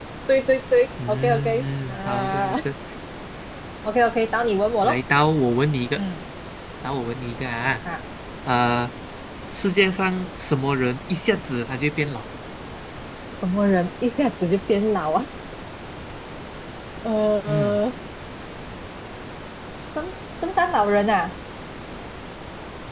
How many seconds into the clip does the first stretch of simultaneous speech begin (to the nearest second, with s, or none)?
1 s